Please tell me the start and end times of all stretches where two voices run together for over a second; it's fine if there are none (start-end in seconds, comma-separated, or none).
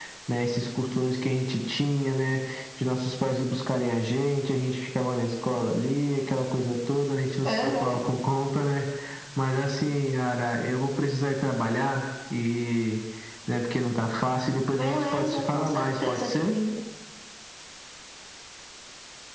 14.7-16.5